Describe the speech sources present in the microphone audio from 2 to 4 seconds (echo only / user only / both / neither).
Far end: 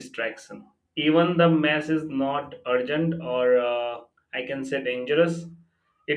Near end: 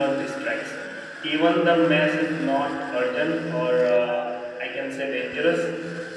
echo only